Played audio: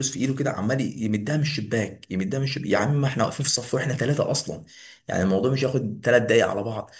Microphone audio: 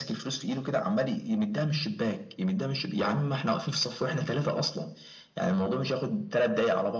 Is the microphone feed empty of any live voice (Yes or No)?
Yes